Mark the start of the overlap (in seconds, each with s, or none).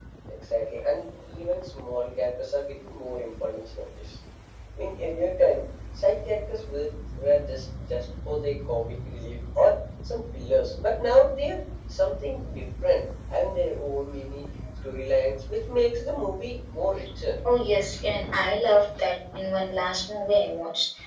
none